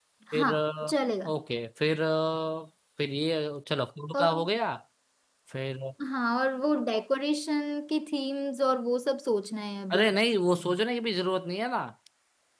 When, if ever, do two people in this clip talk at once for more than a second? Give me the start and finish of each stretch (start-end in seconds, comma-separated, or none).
none